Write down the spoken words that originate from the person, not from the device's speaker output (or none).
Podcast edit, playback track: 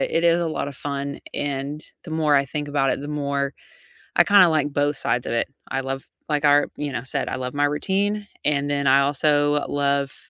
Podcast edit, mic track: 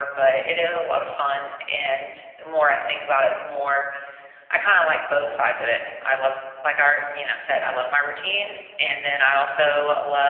none